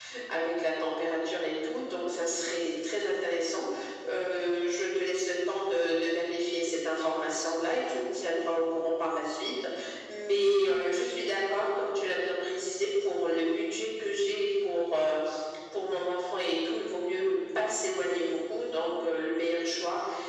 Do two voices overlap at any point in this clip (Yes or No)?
No